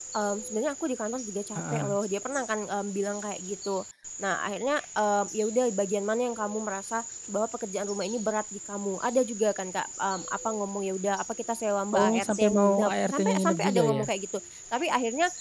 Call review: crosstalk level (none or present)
present